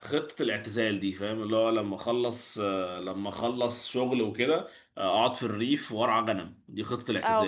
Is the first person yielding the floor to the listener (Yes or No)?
Yes